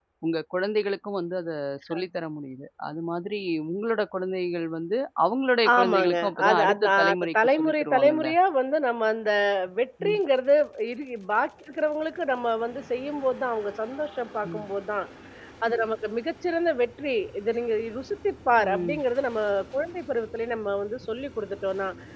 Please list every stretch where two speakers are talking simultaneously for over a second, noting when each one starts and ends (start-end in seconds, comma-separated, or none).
5.8-8.3